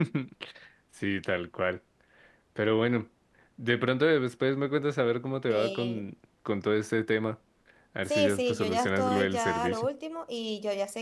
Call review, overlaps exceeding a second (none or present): present